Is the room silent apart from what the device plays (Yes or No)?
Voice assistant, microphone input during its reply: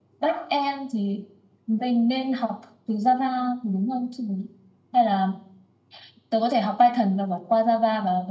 Yes